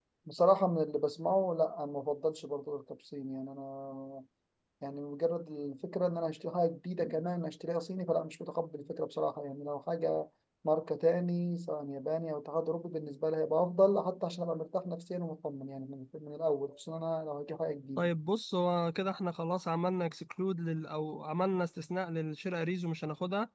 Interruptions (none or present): none